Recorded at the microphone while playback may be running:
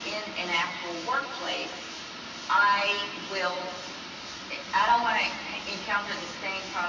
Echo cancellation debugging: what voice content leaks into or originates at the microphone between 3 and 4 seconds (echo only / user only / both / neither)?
echo only